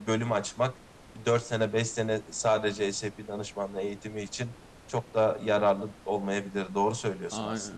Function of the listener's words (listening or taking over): taking over